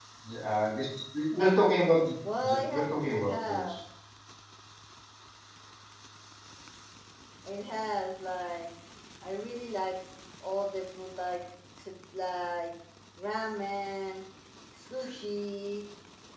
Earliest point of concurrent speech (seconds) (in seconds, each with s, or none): 2.2 s